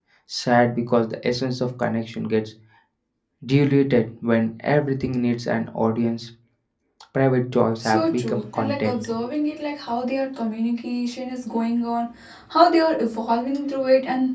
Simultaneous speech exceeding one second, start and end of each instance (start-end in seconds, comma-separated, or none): 7.8-9.1